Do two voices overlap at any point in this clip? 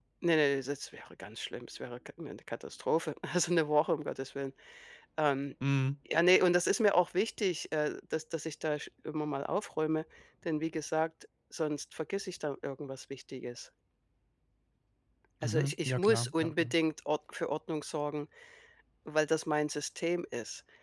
Yes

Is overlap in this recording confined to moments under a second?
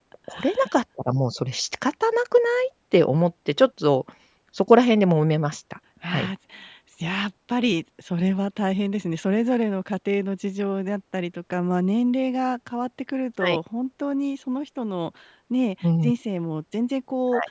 Yes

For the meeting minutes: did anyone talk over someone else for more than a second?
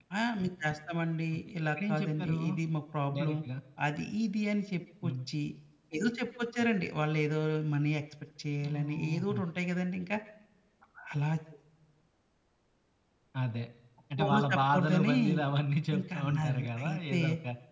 Yes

